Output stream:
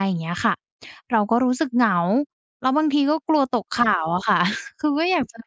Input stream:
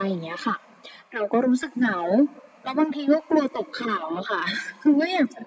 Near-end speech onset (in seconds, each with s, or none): none